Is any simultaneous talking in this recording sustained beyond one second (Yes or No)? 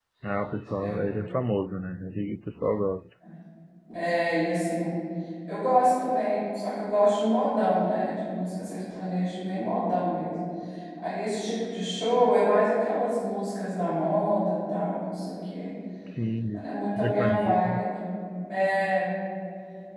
Yes